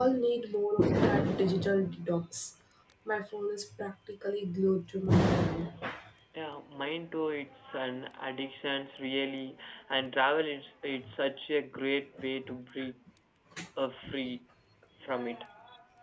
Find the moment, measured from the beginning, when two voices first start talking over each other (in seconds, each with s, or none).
none